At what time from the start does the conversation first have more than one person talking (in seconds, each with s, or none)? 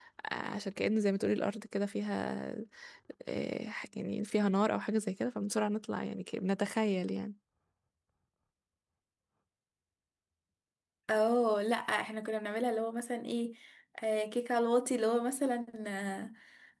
none